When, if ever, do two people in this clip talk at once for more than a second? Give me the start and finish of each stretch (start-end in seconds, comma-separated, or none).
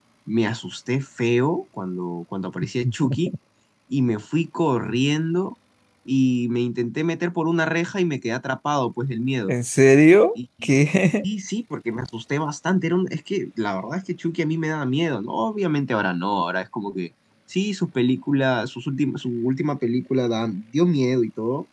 none